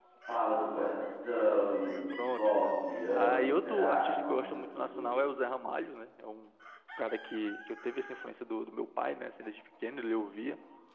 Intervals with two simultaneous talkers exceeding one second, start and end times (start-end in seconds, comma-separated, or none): 2.3-5.1